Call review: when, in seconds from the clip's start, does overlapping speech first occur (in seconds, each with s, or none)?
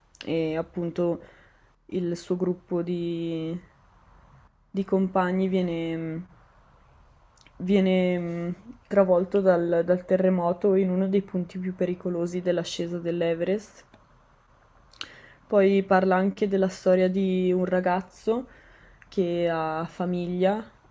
none